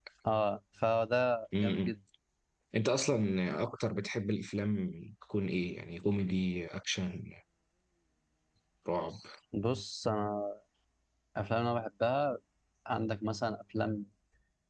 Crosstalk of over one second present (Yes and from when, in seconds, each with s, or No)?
No